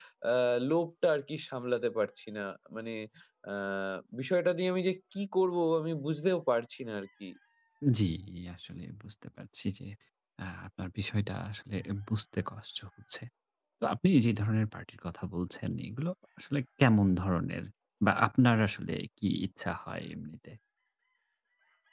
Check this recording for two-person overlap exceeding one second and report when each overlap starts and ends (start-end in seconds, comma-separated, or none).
none